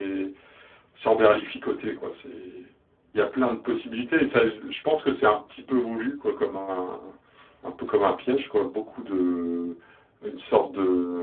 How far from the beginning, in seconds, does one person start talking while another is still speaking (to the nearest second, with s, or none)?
none